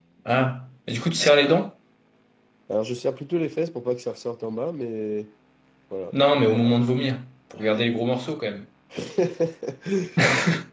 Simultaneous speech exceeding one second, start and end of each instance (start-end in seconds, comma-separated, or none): none